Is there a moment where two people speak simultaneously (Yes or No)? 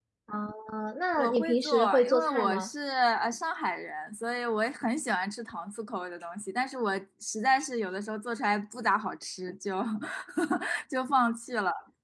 Yes